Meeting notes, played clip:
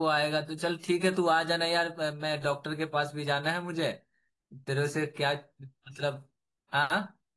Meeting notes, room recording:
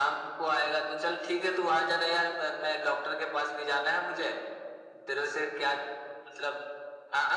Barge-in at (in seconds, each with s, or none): none